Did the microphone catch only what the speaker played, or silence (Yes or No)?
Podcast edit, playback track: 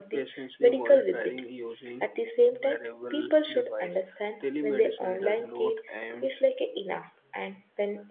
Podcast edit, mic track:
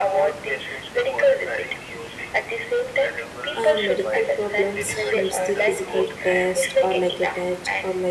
No